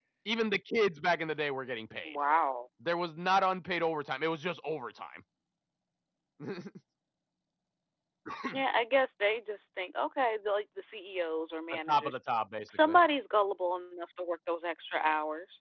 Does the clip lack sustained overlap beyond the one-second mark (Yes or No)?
Yes